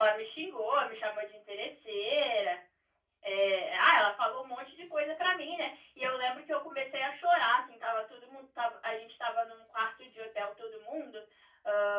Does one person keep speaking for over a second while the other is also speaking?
No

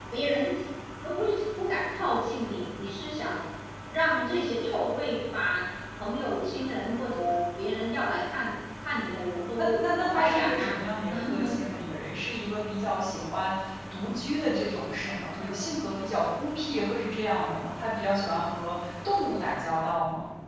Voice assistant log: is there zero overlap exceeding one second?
No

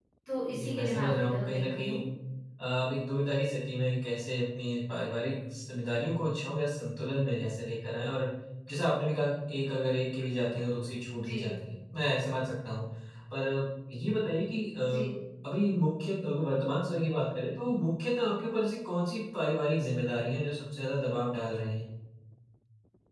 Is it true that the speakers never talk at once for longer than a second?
No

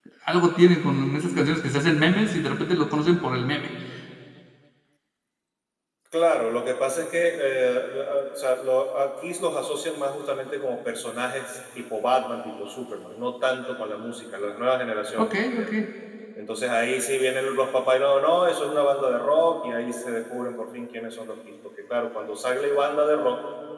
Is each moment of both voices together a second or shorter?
Yes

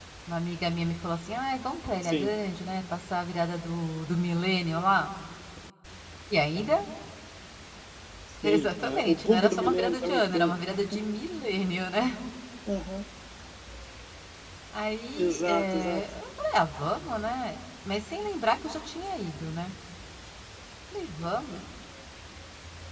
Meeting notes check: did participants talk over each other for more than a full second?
Yes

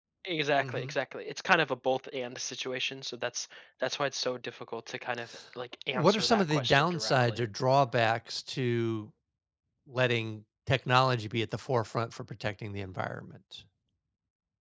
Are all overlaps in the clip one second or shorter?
No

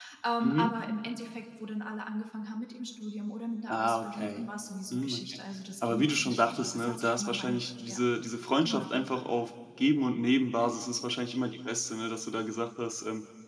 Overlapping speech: Yes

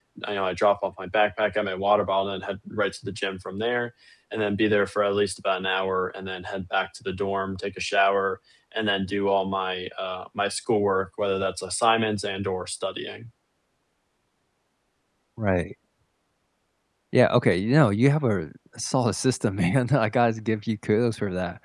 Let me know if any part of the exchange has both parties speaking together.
No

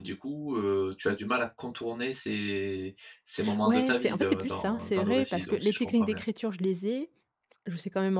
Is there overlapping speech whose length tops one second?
Yes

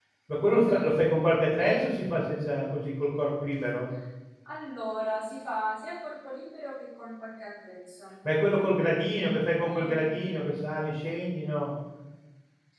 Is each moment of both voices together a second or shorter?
Yes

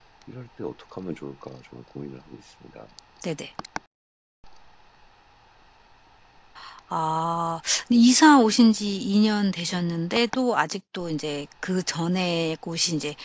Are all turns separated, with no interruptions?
Yes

